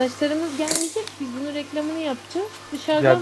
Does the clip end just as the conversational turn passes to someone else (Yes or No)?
Yes